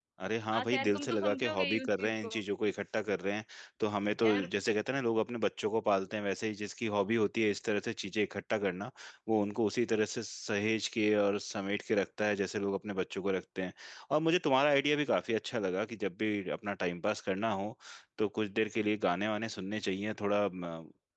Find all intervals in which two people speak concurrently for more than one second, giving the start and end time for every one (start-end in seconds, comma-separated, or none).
0.5-2.3